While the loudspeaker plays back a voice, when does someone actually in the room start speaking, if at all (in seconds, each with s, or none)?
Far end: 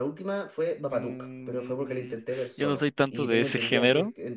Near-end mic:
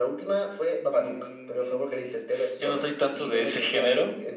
none